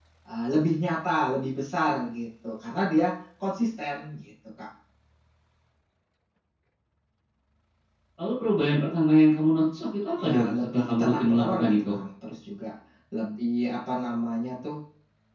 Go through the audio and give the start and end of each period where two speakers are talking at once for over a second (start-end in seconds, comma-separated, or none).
10.2-11.9